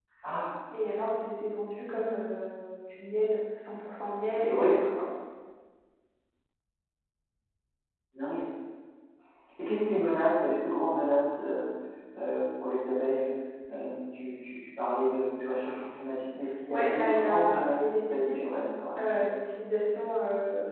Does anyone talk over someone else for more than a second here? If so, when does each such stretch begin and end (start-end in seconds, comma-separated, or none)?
16.7-18.5